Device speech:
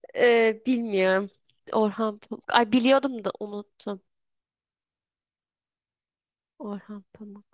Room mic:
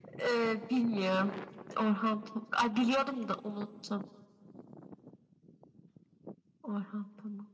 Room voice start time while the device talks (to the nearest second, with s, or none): none